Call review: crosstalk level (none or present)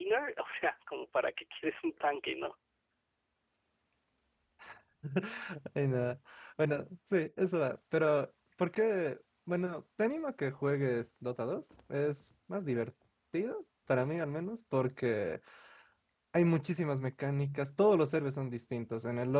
none